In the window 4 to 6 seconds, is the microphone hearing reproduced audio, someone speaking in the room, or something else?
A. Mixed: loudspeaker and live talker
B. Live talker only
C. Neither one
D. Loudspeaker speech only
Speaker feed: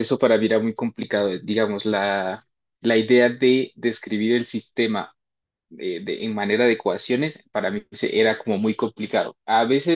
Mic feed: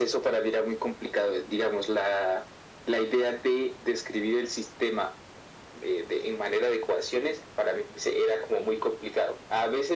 D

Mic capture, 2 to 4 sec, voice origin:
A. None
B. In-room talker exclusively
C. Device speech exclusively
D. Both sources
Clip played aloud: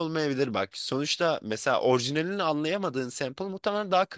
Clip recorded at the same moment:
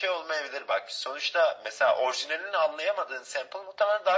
C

